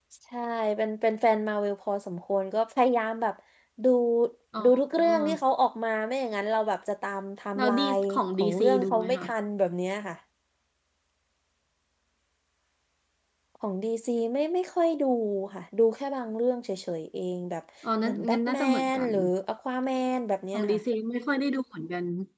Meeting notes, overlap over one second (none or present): present